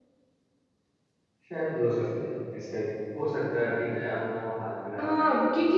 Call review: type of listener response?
taking over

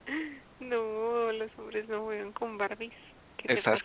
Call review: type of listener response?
taking over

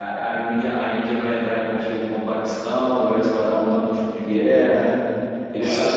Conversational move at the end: taking over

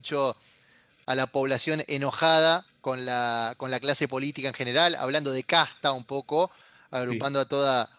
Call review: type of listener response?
listening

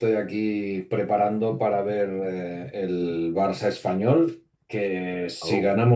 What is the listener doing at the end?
listening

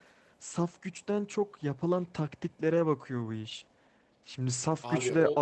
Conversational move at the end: listening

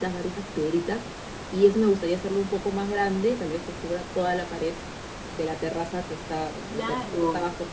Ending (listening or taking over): listening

